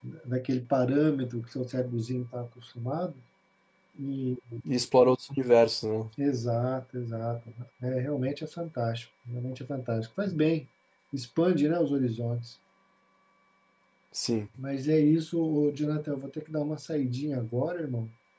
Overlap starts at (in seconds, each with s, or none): none